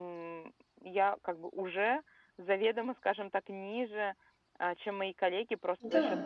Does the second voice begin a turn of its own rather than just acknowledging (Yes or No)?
No